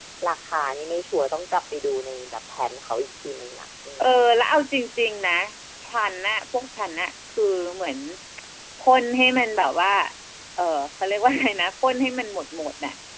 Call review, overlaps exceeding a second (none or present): none